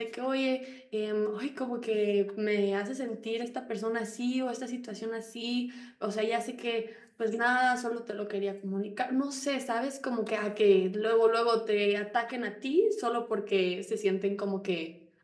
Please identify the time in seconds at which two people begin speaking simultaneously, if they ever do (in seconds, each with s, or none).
none